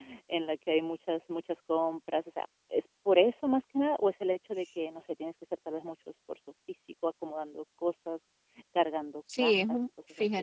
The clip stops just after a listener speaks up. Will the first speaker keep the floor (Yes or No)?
No